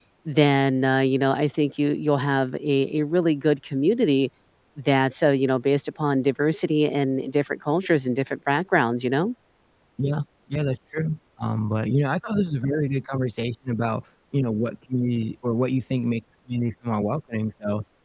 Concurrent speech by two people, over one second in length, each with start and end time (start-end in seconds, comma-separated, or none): none